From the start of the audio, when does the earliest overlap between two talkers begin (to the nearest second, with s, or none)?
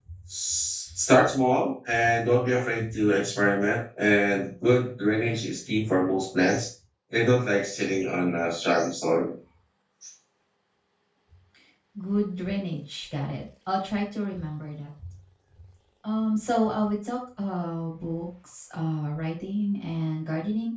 none